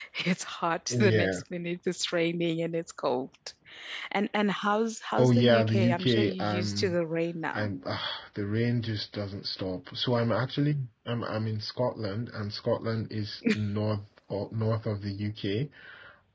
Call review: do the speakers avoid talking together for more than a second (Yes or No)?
No